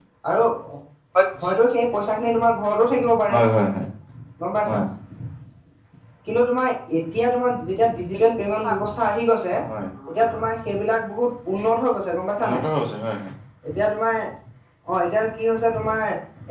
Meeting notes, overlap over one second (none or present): none